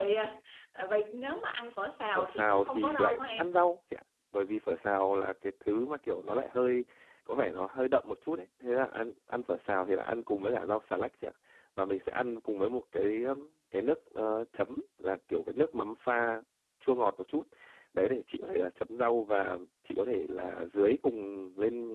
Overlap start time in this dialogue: 2 s

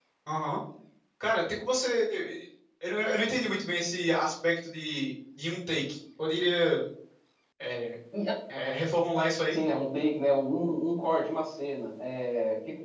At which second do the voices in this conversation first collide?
none

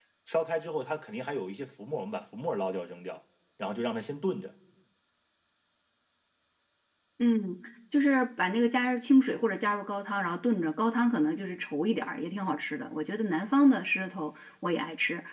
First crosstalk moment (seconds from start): none

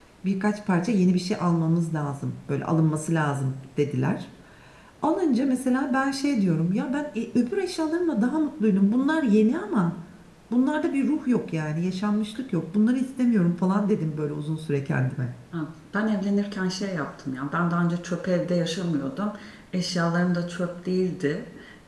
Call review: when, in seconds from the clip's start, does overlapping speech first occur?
none

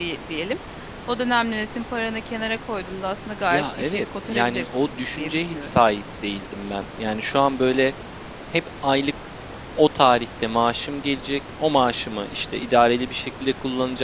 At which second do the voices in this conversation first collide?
4 s

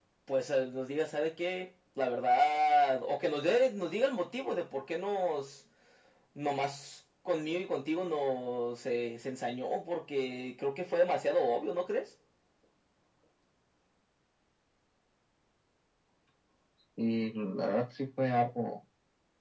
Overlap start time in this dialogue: none

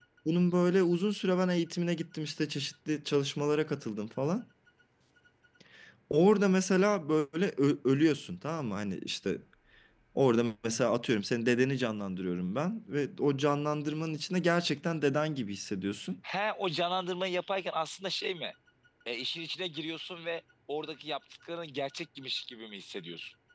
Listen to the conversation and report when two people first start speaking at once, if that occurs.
none

